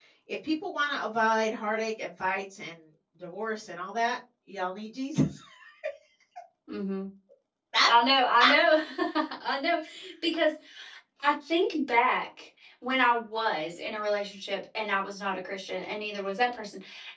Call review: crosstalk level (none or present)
none